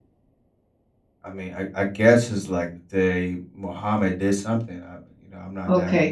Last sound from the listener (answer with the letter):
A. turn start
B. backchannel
A